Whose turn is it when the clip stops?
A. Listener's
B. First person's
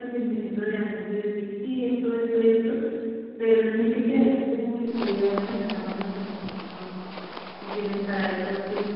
B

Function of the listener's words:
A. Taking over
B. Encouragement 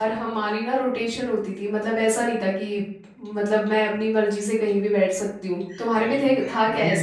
A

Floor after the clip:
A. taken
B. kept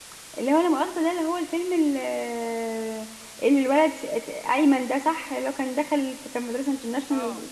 A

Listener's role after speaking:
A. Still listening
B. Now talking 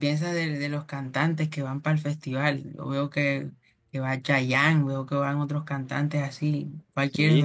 B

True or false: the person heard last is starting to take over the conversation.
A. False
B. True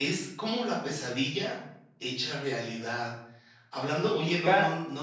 A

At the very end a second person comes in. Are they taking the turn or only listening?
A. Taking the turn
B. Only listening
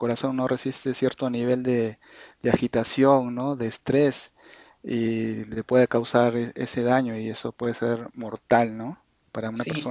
A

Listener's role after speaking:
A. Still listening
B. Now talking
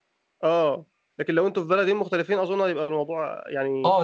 B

